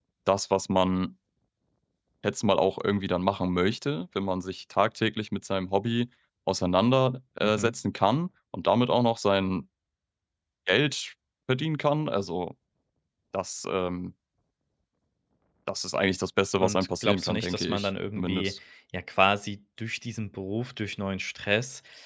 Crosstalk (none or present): present